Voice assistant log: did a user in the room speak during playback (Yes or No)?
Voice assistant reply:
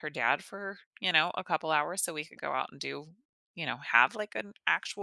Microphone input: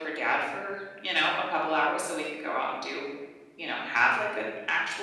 No